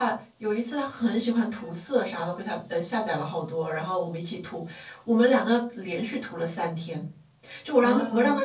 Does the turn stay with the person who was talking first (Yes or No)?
Yes